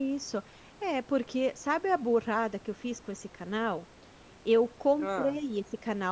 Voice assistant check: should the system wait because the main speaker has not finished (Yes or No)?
Yes